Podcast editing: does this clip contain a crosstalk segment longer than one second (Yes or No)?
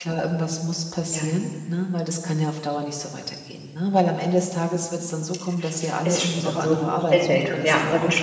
Yes